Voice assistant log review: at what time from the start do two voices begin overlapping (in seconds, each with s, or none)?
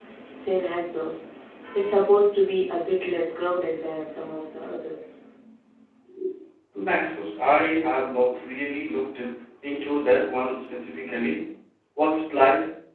none